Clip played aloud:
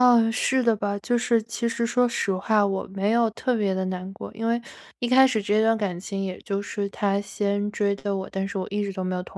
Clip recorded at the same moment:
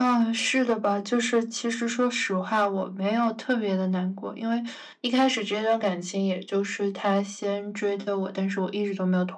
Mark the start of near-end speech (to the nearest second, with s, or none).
none